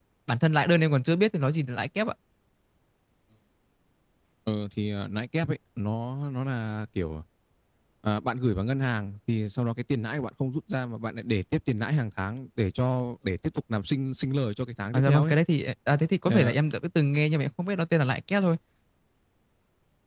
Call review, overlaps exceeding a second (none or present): none